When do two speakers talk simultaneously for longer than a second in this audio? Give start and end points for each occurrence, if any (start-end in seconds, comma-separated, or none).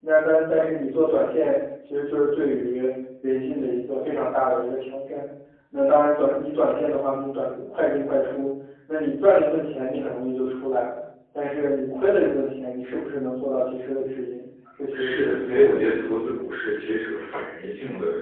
14.9-16.2